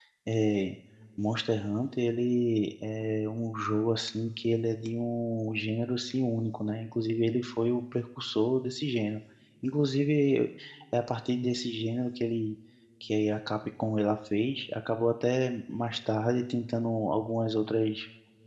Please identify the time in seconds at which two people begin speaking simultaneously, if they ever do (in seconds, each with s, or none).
none